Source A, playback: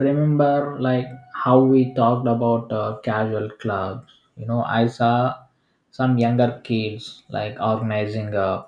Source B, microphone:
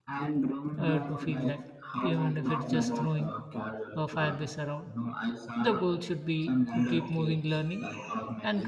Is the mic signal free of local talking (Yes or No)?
No